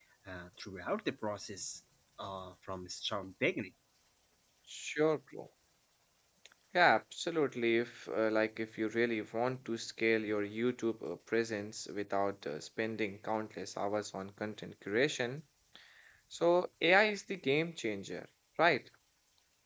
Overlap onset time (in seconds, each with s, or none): none